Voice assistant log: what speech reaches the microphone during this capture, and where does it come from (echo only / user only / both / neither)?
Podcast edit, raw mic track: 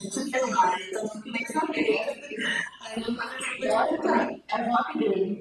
both